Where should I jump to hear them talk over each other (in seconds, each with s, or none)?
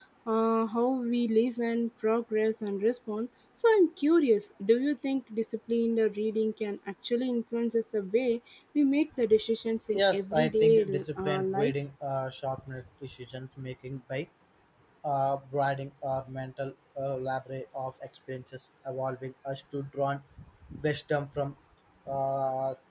9.9 s